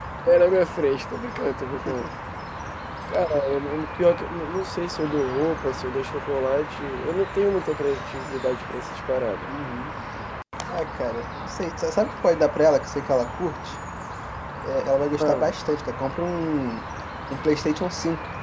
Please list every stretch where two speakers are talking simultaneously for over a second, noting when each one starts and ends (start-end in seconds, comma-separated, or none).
none